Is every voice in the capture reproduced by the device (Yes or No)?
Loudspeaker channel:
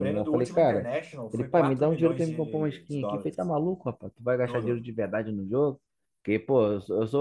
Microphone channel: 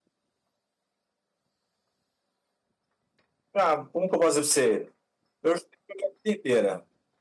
No